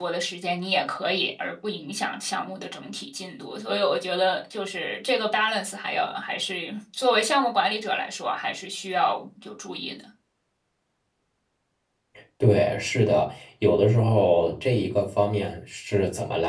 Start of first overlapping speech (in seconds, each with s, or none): none